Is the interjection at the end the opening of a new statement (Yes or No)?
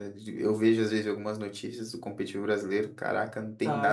Yes